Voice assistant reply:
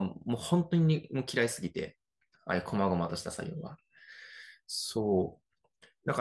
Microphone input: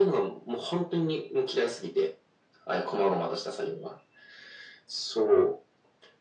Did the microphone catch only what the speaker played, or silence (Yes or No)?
Yes